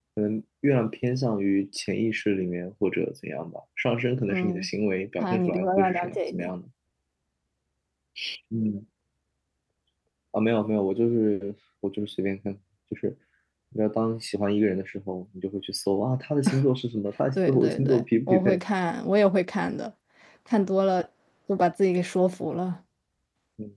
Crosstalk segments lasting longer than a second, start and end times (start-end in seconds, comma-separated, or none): 5.2-6.5, 17.4-18.6